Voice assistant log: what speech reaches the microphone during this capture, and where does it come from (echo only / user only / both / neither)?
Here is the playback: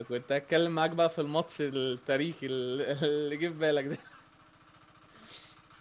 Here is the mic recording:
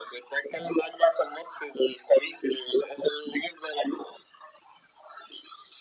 echo only